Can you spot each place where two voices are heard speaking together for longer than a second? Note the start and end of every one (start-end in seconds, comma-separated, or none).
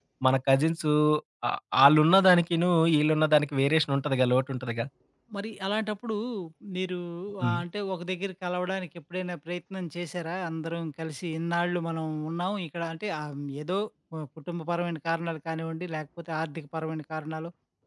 none